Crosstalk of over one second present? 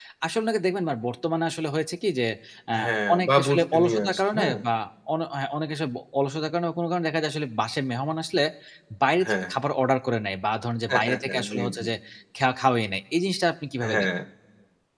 Yes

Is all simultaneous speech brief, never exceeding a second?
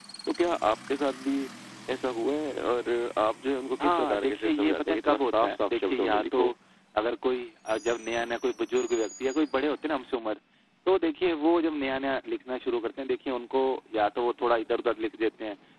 No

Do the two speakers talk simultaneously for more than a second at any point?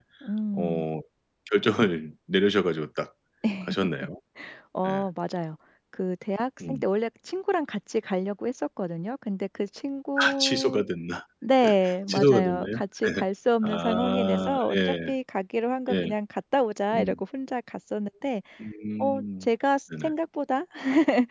Yes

